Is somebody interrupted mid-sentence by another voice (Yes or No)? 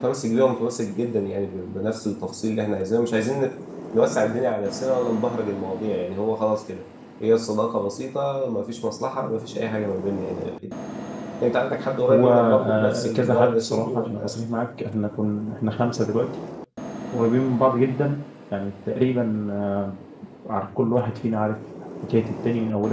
Yes